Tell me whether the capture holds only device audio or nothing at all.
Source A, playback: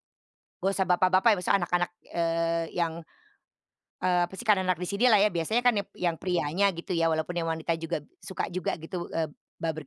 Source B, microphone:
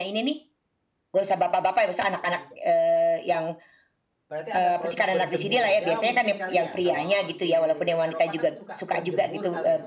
No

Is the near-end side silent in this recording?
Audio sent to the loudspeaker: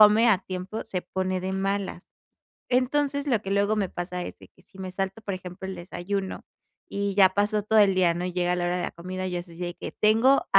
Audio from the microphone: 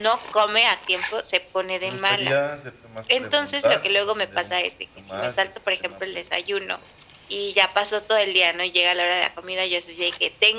No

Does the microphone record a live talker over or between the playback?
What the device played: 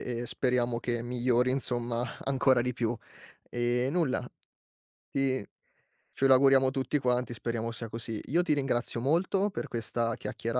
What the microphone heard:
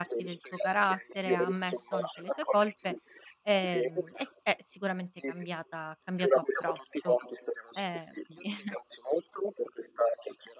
Yes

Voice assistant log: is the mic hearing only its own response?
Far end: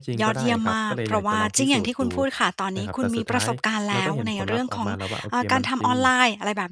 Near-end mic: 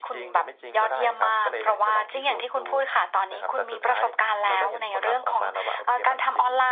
Yes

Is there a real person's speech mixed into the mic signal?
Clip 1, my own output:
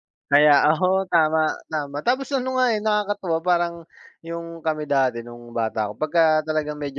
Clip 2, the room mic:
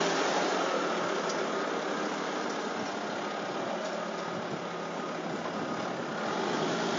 No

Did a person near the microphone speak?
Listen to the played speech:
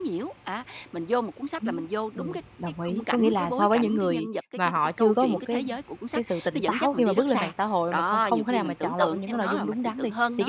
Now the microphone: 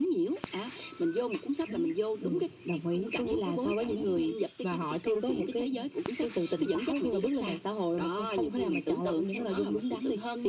No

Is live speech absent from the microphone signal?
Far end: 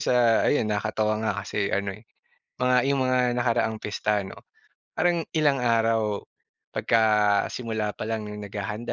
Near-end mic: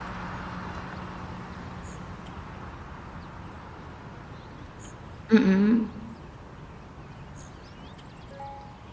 No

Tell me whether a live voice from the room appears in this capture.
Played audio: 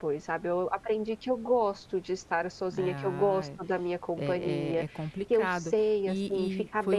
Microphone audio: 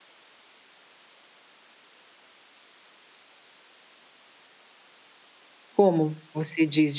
Yes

